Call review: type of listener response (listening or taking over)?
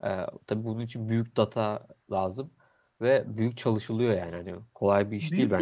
taking over